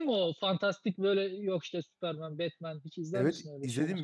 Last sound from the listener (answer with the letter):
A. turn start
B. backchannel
A